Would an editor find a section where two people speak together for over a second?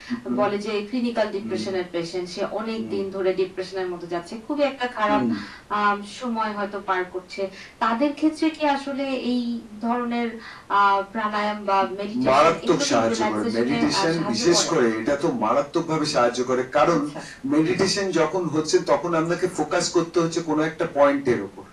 Yes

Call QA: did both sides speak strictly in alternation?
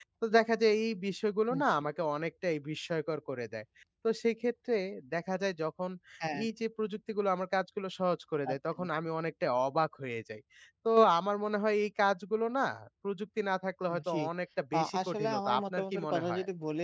No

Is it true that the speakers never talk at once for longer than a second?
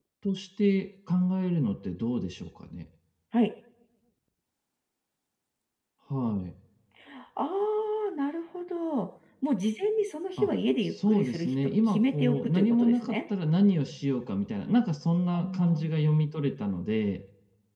No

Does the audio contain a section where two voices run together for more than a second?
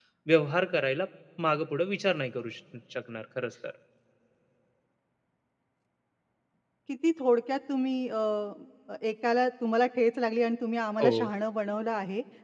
No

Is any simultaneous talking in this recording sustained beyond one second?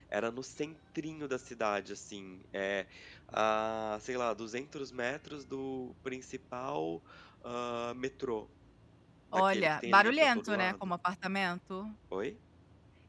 Yes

